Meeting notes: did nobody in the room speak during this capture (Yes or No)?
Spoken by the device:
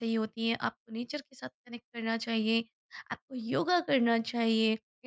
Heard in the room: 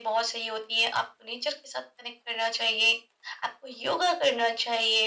Yes